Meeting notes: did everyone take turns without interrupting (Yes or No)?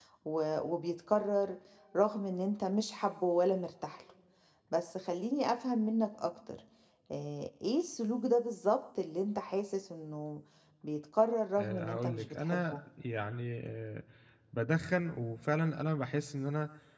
No